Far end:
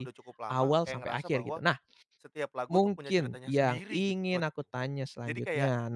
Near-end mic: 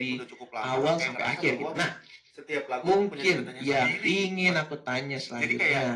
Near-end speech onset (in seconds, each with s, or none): none